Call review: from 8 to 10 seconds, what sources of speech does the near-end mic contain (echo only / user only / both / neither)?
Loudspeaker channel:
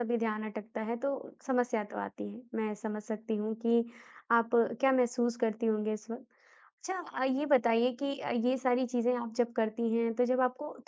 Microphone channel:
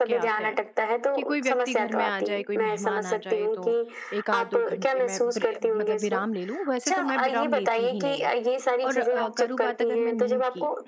both